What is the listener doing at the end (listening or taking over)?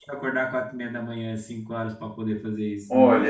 taking over